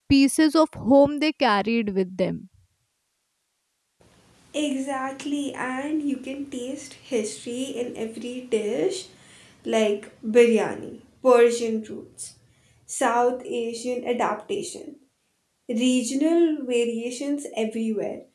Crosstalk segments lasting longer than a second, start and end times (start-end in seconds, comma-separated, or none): none